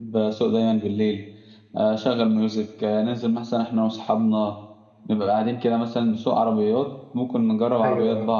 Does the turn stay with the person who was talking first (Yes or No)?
Yes